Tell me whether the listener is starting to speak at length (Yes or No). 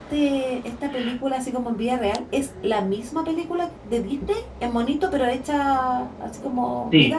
Yes